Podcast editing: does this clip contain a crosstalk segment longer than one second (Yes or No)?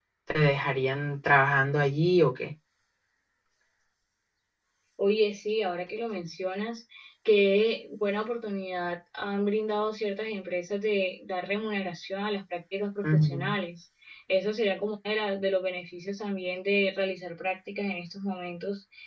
No